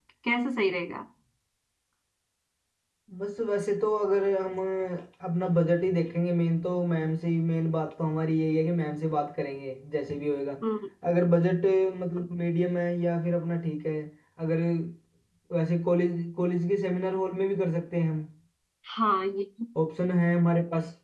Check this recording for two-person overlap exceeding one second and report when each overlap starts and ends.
none

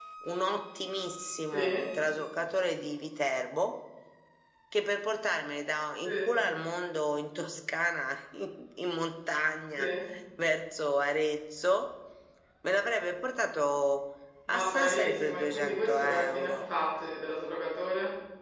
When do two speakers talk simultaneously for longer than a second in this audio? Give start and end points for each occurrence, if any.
14.5-16.5

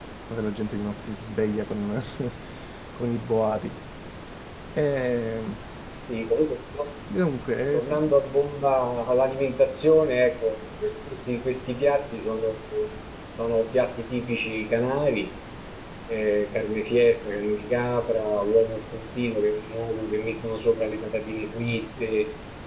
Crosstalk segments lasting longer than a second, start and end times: none

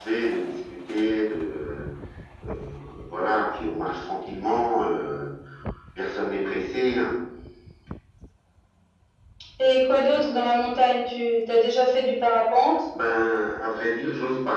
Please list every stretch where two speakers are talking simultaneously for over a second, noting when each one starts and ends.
none

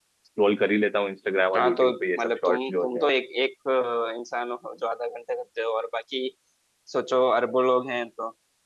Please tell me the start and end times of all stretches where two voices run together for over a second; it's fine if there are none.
1.5-3.1

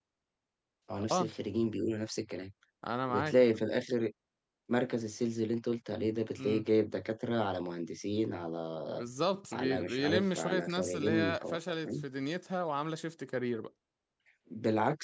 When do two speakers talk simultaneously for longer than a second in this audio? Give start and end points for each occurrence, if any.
9.5-12.0

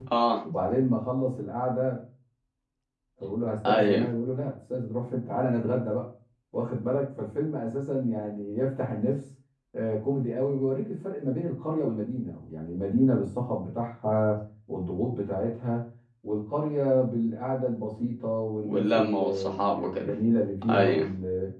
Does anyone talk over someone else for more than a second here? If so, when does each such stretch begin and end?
18.6-20.1

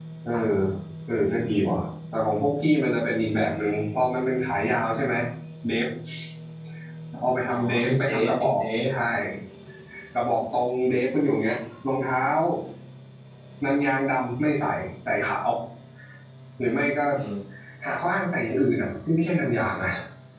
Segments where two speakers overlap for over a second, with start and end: 7.5-8.9

